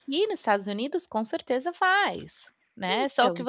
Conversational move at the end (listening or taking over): listening